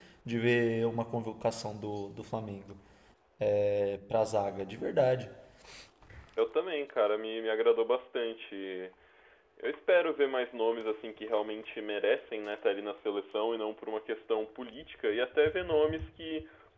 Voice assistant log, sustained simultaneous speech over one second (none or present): none